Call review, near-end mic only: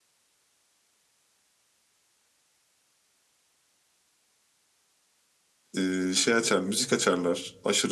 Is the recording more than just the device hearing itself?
Yes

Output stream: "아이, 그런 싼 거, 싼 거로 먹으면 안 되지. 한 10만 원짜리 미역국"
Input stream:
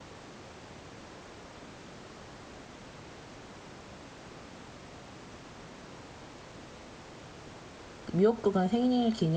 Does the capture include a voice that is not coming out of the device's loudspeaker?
Yes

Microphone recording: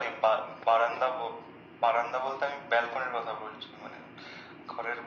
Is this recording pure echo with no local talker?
Yes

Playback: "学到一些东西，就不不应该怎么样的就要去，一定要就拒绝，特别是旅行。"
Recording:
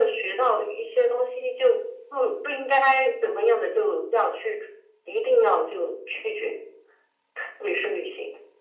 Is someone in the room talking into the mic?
No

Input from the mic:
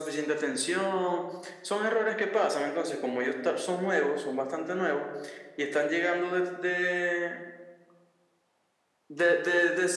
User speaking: No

